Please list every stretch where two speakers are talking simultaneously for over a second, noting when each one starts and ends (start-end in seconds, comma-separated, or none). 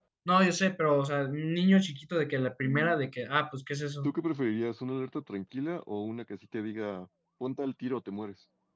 none